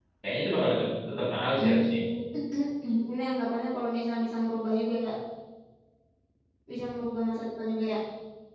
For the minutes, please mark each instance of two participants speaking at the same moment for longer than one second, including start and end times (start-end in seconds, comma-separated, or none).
none